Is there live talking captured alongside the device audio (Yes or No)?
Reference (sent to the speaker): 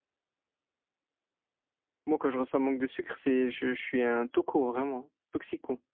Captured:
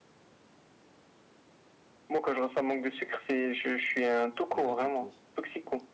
Yes